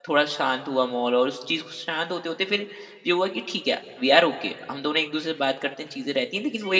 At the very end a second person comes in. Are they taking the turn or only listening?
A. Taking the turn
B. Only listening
A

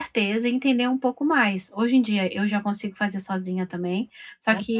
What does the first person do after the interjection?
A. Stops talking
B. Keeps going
B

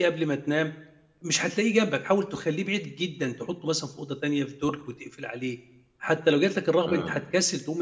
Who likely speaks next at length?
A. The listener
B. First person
B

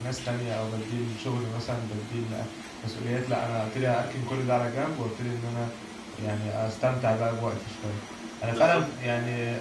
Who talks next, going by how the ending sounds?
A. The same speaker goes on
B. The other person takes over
A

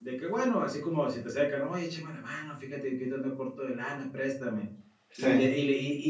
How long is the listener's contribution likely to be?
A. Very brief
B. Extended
A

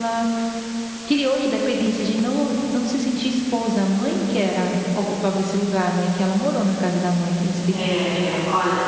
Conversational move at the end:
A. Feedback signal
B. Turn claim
B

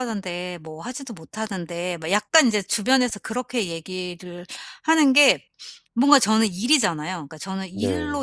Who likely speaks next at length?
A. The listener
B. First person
B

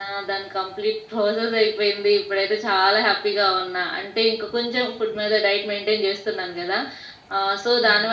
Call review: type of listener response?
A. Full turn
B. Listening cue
B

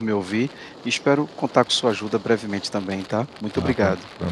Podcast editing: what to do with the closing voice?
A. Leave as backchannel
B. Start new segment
B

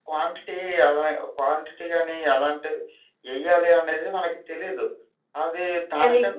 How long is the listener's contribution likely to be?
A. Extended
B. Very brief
B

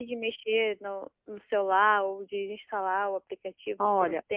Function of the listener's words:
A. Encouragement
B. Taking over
B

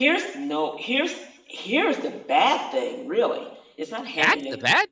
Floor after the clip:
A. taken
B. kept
A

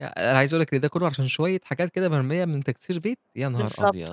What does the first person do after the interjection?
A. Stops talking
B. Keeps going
A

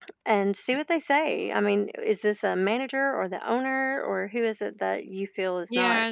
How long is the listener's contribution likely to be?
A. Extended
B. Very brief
A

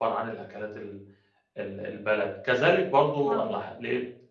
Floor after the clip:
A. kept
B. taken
A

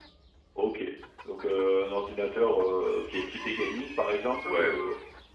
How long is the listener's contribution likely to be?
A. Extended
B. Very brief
B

